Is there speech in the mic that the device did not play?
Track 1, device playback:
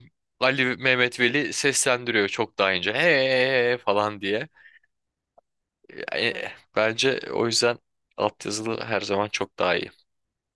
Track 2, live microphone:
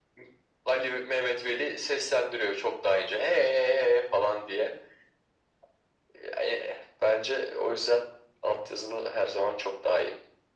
No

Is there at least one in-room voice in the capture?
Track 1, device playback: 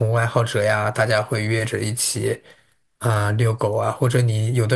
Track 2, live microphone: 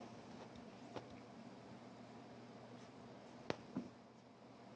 No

